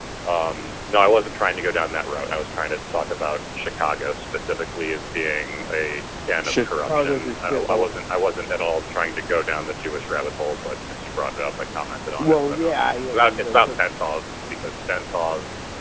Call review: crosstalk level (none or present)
present